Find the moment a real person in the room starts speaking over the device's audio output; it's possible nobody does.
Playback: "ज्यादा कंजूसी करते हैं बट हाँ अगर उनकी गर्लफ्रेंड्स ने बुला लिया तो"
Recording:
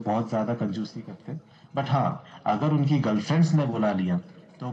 none

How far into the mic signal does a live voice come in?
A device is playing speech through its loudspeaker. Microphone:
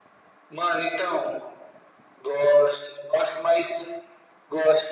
none

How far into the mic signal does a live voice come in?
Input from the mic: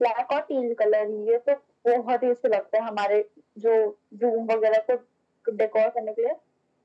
none

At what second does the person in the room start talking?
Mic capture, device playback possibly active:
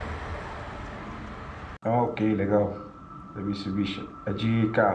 1.8 s

